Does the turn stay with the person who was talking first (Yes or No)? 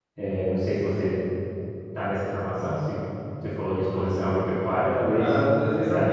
No